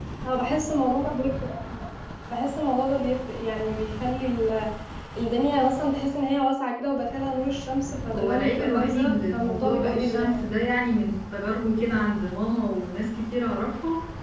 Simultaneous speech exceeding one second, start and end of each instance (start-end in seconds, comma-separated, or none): 8.1-10.3